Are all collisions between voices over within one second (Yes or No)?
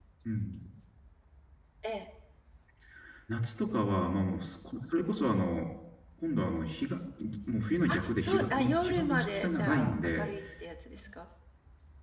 No